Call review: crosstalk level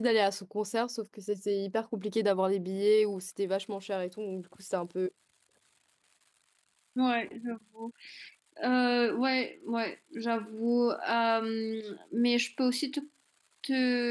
none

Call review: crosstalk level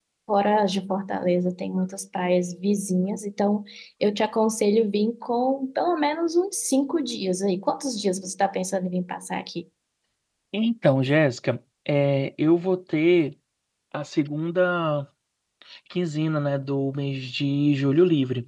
none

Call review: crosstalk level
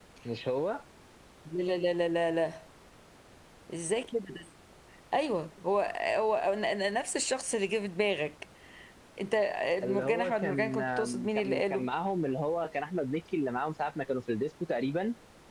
present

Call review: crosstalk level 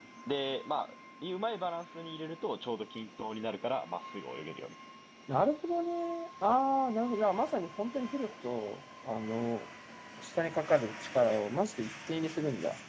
none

